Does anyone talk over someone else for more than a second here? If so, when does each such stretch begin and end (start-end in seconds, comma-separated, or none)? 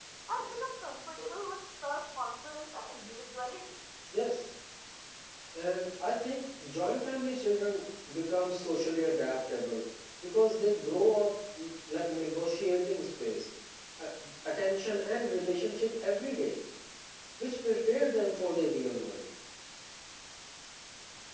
none